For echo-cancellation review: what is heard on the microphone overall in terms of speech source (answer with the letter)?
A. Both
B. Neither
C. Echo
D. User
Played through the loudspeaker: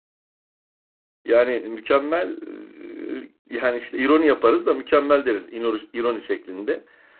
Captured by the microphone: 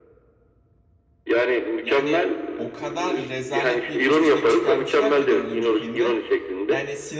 A